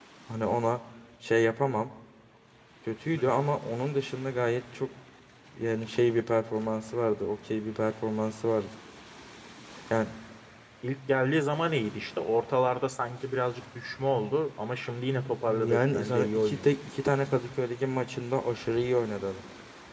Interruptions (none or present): present